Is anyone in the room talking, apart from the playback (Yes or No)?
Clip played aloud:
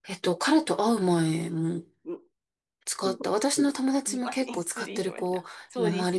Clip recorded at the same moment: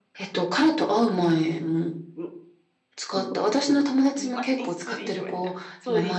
No